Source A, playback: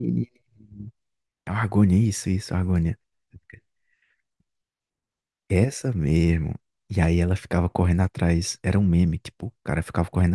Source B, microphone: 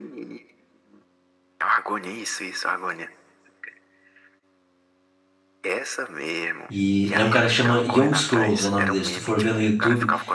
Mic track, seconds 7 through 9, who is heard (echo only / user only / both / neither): both